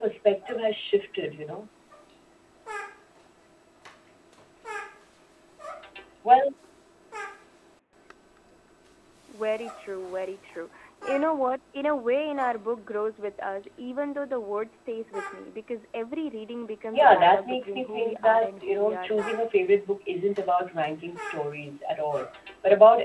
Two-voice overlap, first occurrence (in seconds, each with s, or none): 16.9 s